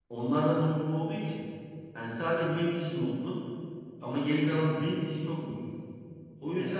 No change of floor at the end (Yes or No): Yes